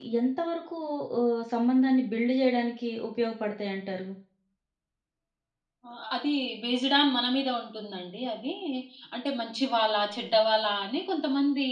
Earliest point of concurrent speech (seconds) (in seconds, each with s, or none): none